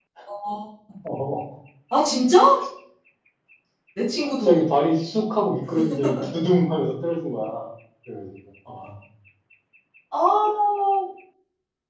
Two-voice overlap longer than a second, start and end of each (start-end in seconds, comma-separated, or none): none